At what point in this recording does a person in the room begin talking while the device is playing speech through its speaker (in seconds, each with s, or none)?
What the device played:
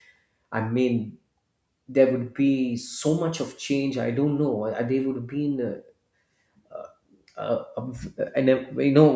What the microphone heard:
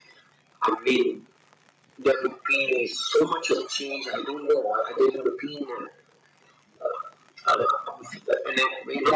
none